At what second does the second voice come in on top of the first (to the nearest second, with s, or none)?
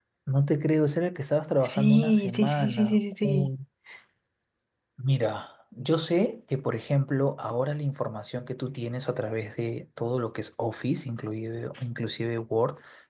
2 s